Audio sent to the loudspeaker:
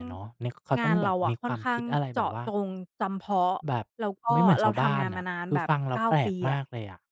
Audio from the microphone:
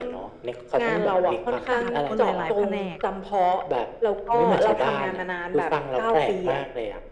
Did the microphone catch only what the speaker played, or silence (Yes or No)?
No